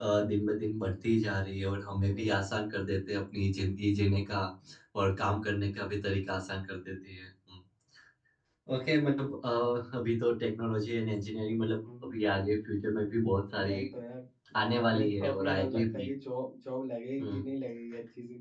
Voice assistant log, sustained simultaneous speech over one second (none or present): present